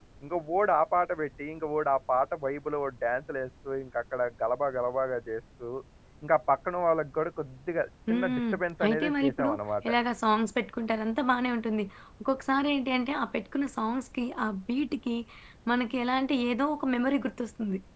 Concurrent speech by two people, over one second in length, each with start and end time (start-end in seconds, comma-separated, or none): 8.1-9.5